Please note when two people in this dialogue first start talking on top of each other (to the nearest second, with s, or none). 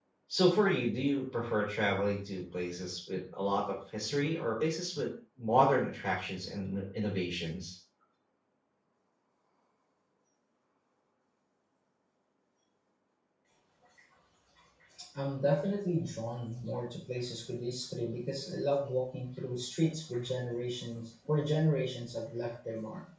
none